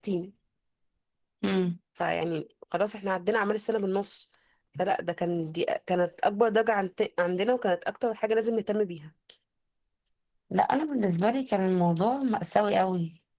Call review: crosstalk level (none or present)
none